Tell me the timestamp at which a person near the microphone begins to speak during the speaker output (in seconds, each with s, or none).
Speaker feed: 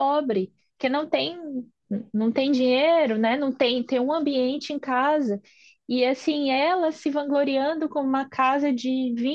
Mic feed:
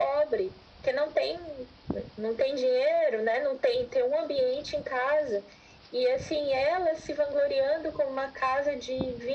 none